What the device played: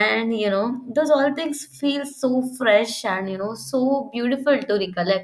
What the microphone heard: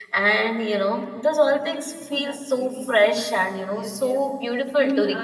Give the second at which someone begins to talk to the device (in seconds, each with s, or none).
2.1 s